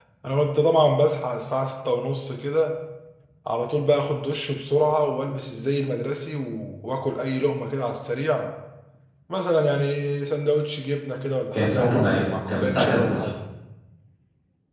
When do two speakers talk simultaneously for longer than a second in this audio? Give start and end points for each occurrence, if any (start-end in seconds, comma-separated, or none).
11.5-13.3